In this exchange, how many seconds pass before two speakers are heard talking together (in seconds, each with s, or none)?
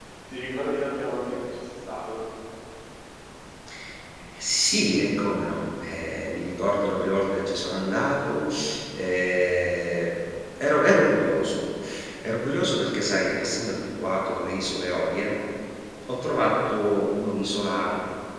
none